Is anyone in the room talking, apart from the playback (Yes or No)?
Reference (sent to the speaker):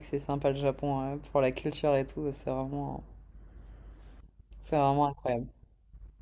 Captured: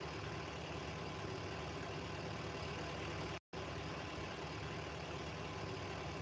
No